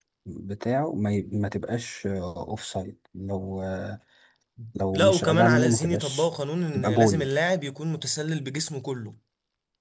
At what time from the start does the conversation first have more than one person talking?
4.9 s

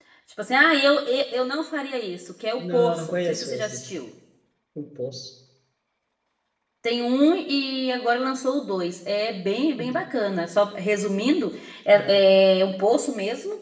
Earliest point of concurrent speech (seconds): 2.6 s

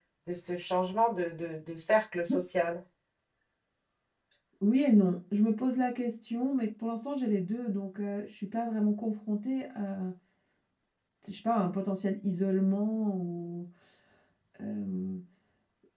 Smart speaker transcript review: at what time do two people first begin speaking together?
none

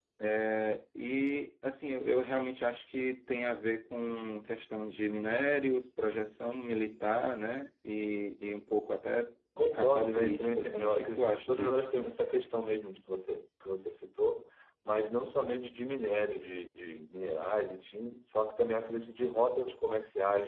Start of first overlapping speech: 9.6 s

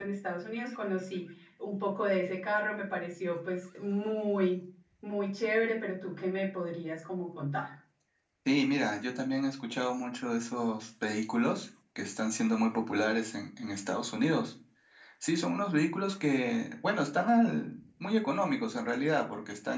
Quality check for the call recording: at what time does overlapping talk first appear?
none

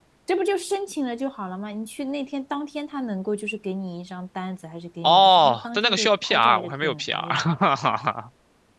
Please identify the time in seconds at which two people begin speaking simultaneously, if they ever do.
5.0 s

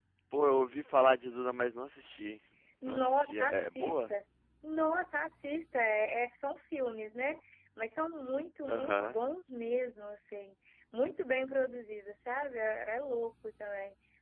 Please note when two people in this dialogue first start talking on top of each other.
2.8 s

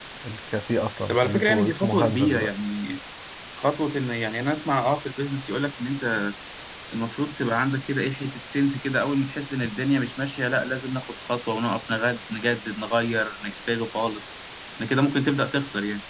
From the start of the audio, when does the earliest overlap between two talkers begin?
1.1 s

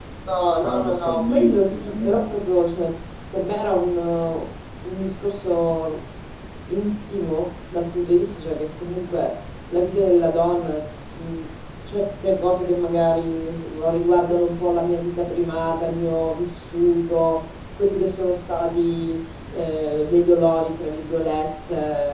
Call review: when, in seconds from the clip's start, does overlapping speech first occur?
0.6 s

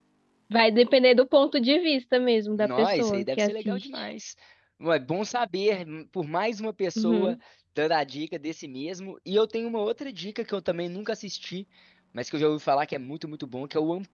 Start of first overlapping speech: 2.6 s

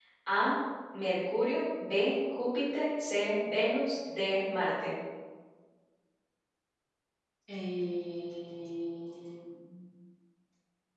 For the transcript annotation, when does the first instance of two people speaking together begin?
none

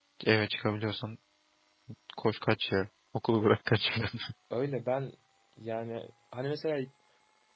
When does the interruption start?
none

